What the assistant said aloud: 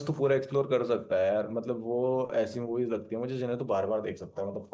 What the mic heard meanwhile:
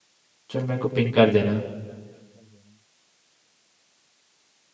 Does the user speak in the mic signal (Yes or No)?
Yes